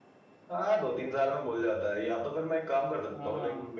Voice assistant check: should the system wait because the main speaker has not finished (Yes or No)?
Yes